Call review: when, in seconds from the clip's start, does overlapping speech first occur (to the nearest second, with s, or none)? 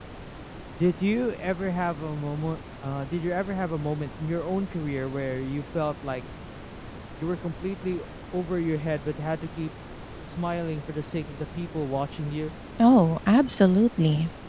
none